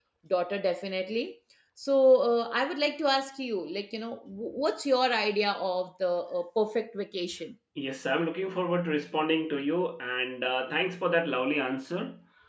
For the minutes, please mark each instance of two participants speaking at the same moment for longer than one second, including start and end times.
none

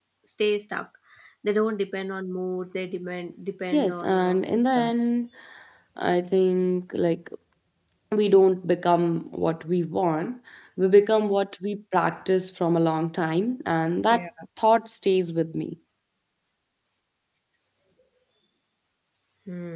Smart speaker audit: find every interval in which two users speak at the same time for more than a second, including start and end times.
3.7-5.0

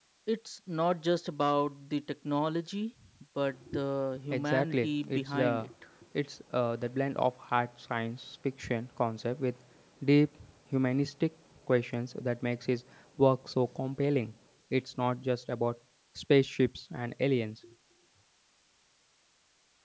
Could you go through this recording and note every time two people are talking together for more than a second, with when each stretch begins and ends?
4.3-5.7

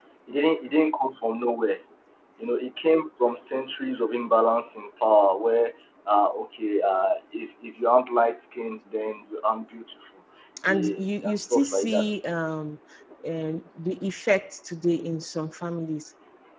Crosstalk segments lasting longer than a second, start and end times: 10.7-12.1

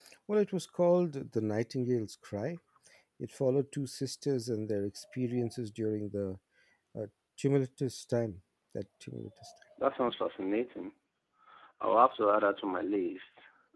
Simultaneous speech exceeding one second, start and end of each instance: none

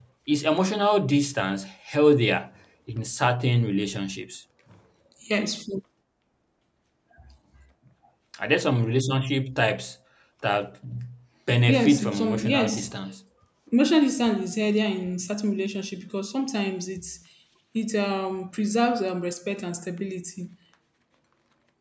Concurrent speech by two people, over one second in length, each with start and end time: 11.7-12.9

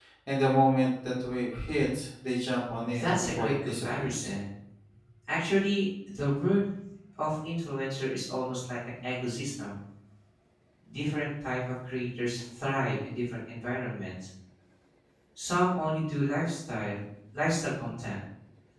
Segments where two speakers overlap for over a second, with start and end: 2.9-4.3

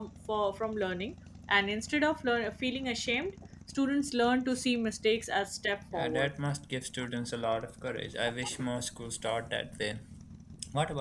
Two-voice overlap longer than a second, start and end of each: none

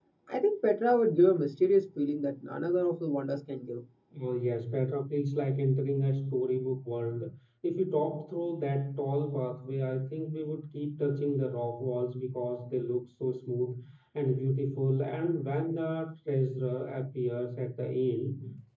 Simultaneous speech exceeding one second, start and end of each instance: none

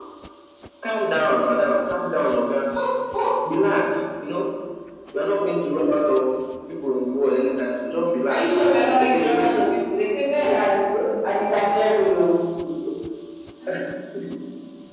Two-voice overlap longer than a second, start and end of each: 8.3-9.6

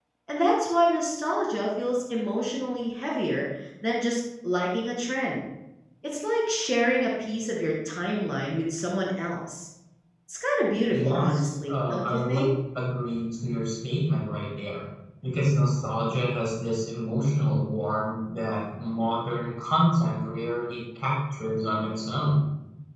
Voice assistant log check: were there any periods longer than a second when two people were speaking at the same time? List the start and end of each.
10.9-12.5

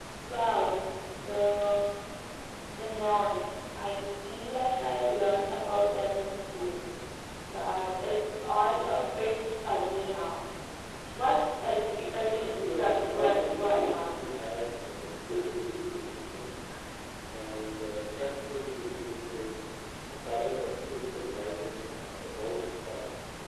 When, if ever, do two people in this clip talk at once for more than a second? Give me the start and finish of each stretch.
12.1-14.3

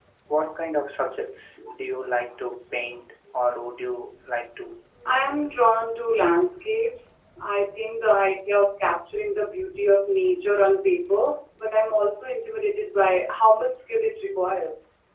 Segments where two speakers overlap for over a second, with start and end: none

